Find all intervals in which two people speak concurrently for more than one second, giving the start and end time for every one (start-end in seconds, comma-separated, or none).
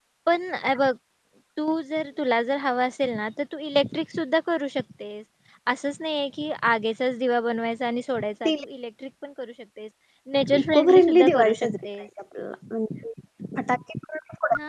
10.6-11.9